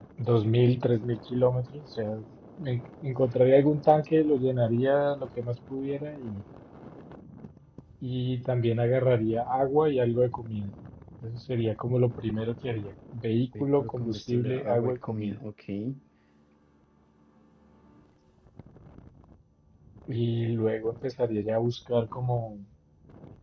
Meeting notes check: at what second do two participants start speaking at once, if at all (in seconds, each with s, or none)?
13.5 s